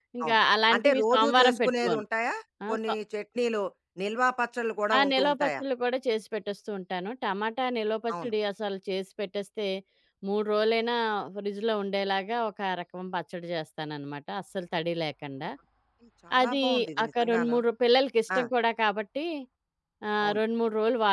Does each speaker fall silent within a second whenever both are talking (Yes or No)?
No